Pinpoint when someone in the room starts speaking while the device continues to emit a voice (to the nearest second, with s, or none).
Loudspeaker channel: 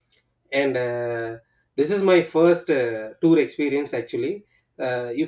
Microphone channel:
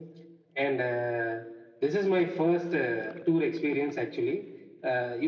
none